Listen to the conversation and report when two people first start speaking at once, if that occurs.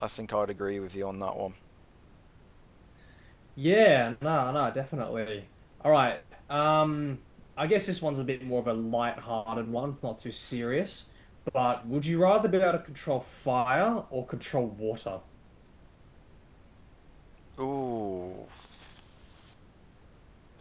none

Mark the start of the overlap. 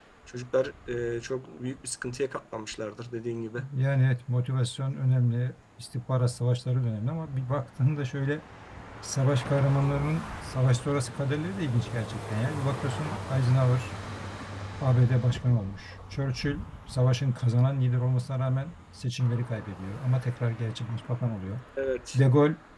none

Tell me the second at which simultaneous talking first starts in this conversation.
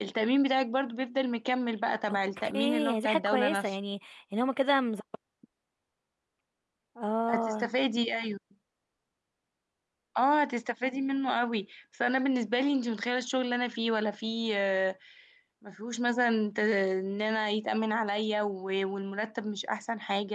2.1 s

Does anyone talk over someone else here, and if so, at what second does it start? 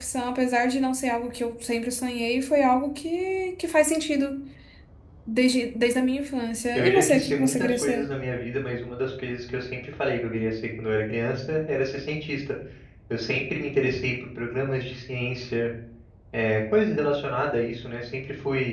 6.7 s

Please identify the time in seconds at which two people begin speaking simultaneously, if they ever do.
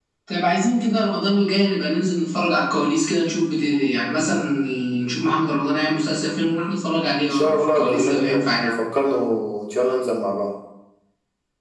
7.2 s

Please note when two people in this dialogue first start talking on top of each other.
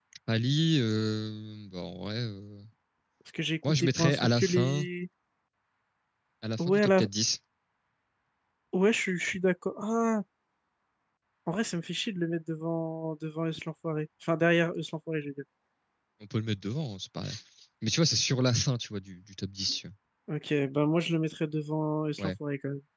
3.6 s

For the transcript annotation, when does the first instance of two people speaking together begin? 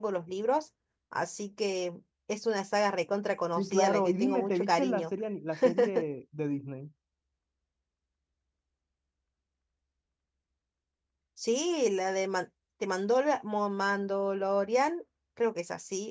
3.6 s

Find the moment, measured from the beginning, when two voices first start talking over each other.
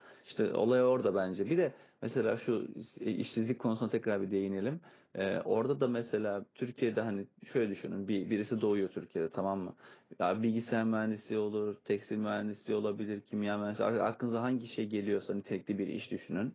none

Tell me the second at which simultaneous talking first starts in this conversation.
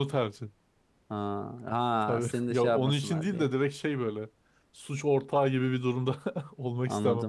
2.0 s

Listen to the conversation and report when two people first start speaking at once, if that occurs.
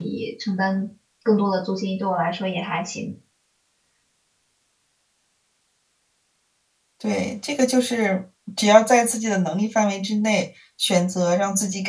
none

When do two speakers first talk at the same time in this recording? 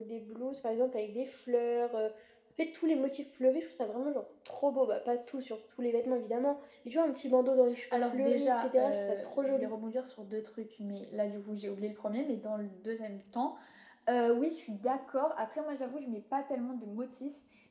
7.9 s

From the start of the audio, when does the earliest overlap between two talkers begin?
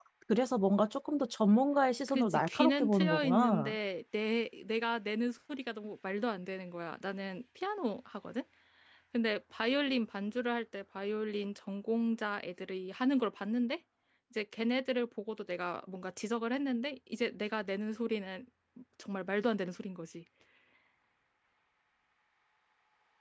2.1 s

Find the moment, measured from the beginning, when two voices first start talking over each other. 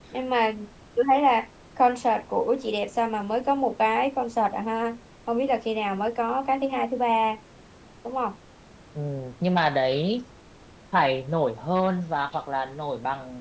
none

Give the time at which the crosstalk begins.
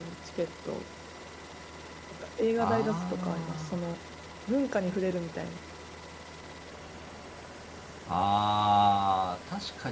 2.6 s

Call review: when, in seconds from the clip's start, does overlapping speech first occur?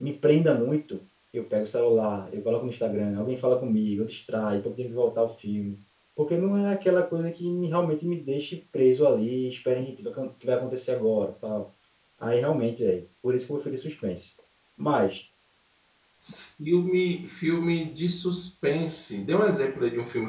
none

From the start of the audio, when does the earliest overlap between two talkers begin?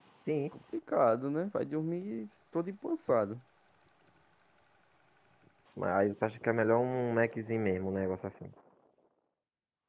none

